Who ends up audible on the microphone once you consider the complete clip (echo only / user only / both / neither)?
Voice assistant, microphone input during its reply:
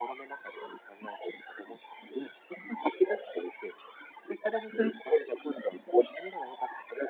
echo only